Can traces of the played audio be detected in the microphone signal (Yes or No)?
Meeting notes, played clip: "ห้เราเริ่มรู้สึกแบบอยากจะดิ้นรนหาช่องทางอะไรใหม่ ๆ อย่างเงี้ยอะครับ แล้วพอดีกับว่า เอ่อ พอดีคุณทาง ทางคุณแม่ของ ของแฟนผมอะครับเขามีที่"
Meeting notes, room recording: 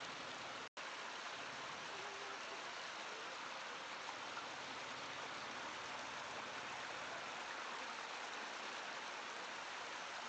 No